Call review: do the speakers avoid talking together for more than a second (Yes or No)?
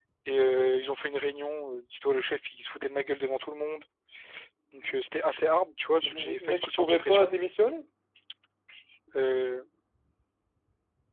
No